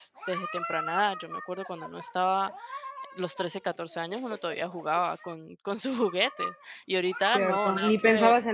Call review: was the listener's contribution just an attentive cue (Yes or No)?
No